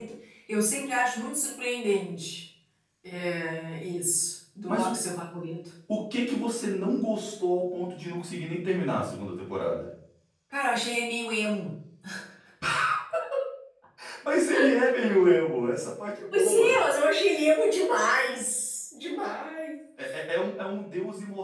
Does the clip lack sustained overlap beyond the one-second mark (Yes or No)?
Yes